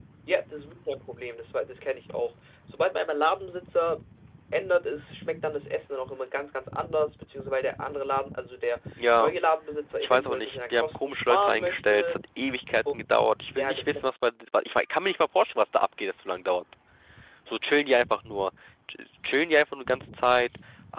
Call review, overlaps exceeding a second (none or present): present